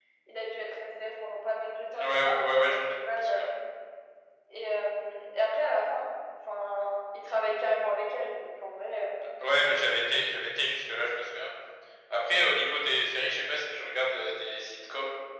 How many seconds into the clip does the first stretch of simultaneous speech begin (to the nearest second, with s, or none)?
2 s